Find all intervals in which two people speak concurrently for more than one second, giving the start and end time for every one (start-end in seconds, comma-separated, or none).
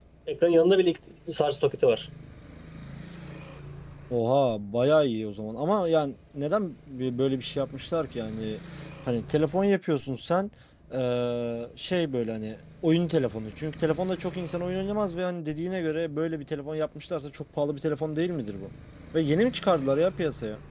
none